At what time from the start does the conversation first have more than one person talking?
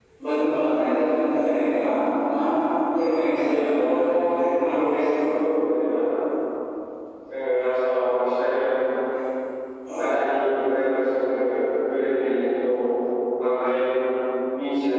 3.5 s

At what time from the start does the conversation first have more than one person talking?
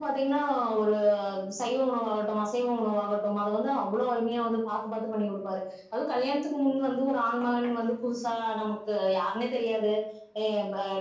none

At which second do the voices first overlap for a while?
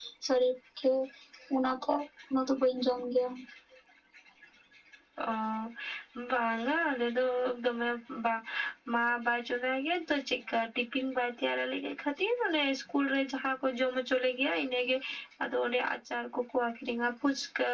none

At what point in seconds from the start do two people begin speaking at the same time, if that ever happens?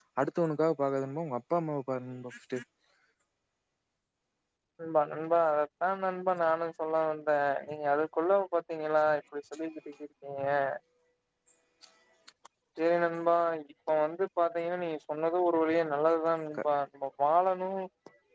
none

